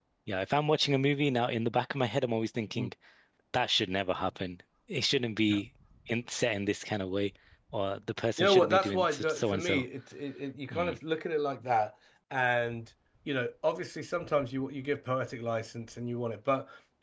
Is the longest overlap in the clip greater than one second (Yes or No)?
Yes